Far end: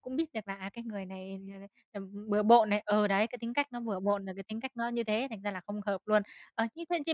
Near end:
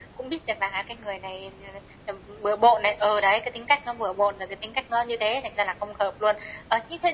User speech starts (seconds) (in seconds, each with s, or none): none